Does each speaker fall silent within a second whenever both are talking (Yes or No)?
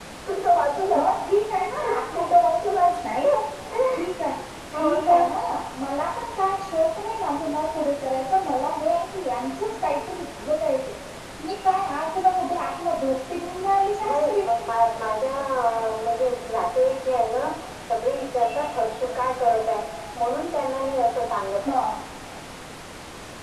Yes